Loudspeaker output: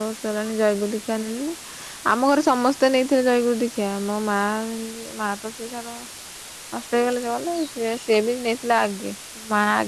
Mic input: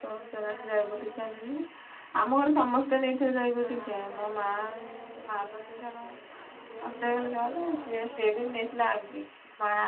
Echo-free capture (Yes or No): No